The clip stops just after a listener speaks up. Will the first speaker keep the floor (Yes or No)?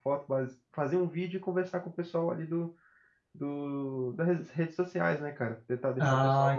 Yes